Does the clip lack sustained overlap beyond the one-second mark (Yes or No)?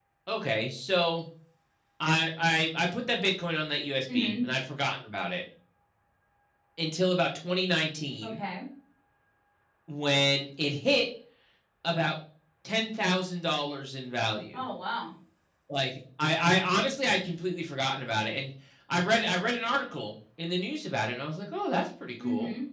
Yes